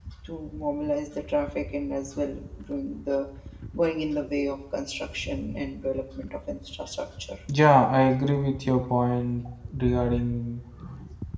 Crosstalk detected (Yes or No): No